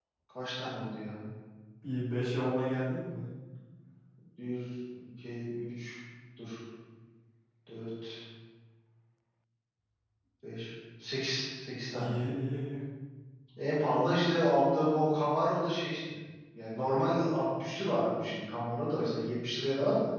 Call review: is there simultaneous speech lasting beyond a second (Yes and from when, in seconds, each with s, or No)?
No